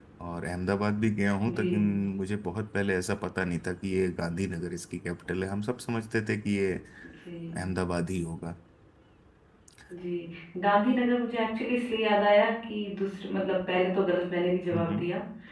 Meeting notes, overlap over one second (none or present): none